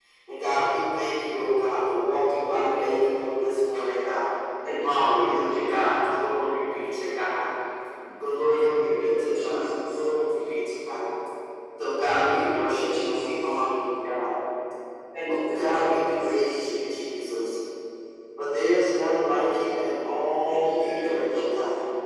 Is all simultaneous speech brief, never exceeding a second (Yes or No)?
No